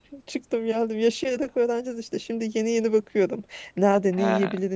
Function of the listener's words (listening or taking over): listening